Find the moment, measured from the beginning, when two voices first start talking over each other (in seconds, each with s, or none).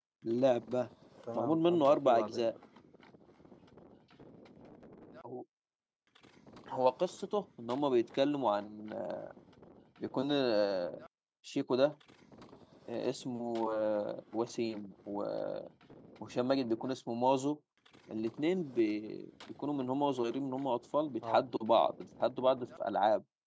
1.3 s